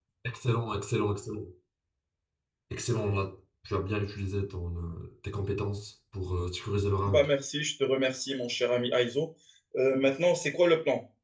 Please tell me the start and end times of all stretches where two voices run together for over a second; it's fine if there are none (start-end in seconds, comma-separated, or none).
none